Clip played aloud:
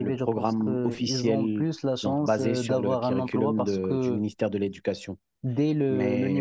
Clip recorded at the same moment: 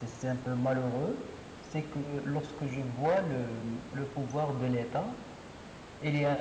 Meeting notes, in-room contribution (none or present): present